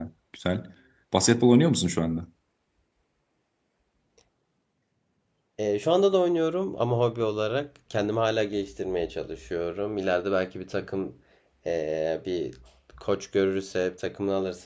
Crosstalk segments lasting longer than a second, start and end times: none

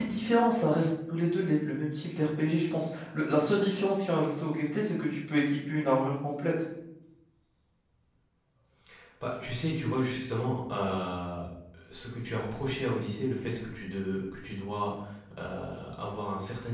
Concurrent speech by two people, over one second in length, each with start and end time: none

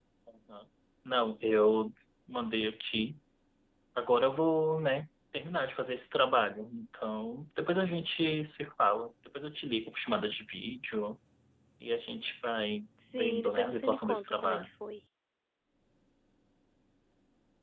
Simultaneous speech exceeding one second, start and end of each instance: 13.1-14.6

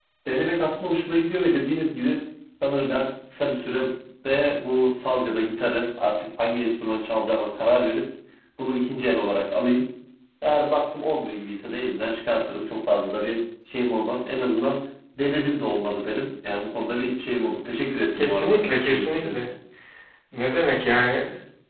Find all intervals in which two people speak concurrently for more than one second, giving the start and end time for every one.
18.1-19.4

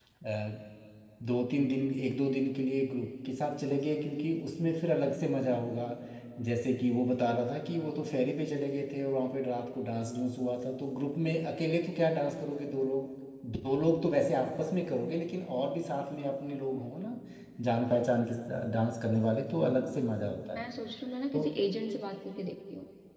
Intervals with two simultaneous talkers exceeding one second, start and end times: none

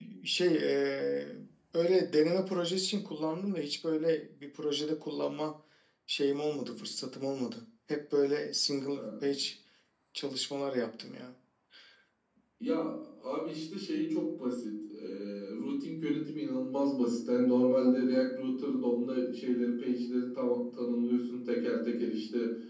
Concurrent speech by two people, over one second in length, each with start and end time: none

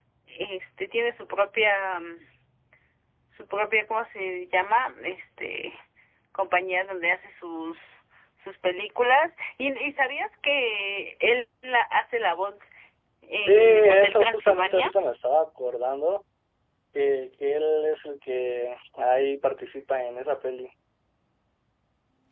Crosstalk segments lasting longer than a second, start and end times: 13.4-14.9

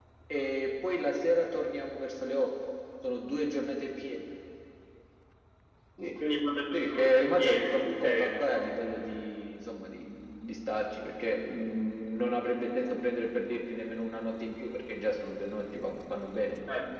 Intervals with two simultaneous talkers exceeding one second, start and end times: 6.7-8.7

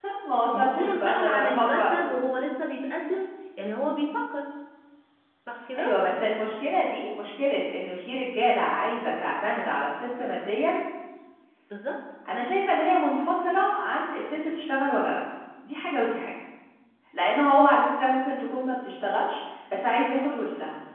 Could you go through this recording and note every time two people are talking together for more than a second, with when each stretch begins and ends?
0.5-2.1

